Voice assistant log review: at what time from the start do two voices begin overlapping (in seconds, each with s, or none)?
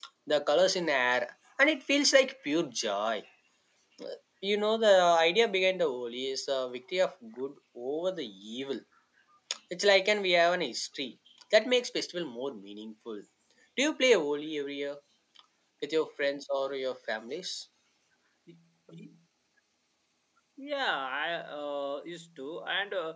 none